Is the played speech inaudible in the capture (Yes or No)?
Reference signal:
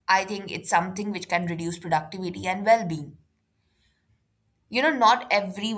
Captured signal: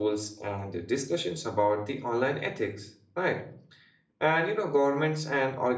Yes